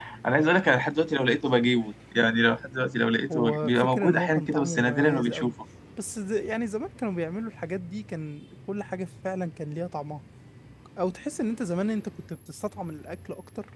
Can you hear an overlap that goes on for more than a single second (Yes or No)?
Yes